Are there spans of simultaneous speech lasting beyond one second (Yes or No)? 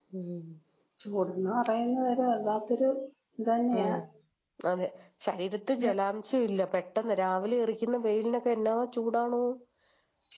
No